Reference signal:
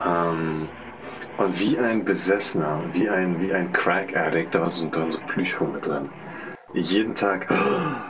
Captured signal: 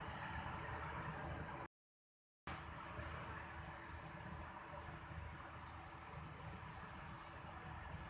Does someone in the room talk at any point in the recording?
No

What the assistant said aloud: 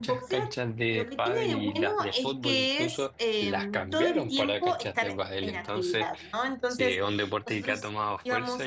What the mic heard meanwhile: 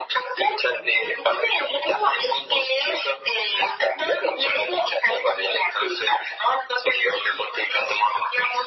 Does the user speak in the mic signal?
No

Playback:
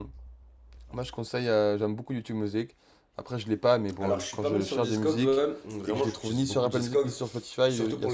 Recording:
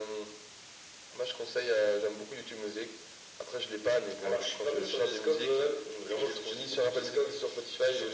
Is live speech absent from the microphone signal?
Yes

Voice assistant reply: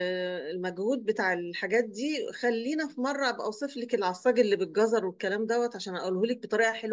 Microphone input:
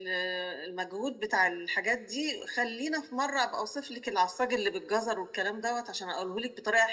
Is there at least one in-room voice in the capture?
No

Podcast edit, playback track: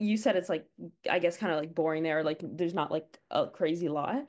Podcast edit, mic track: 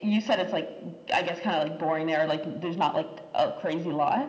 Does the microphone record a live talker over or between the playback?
No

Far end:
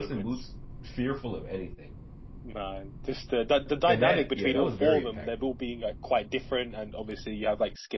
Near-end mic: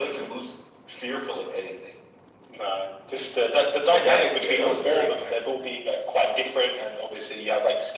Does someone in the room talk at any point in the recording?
No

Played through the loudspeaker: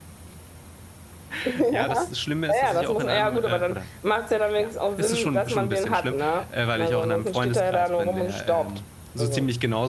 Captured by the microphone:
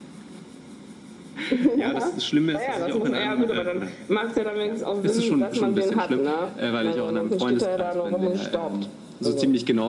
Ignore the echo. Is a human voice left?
No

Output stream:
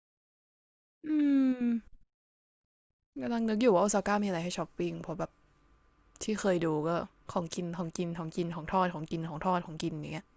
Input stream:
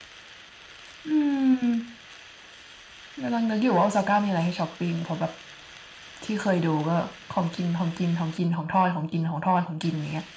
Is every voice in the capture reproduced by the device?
Yes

